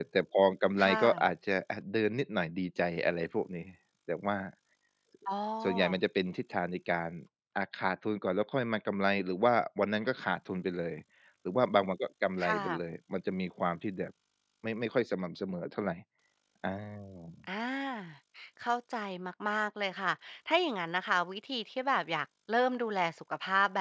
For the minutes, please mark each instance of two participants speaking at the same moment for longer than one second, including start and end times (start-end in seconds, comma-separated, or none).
none